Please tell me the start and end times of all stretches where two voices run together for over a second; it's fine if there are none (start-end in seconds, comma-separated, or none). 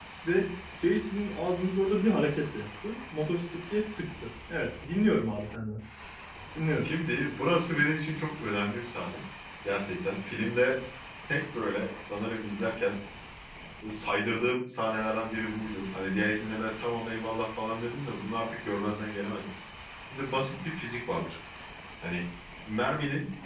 none